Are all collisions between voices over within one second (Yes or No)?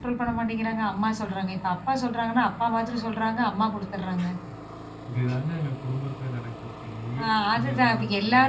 No